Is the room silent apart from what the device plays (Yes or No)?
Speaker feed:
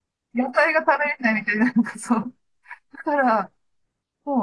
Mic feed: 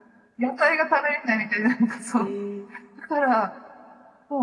No